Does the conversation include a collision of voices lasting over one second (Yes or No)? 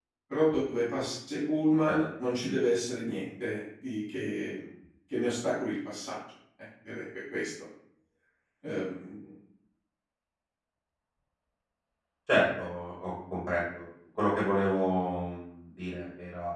No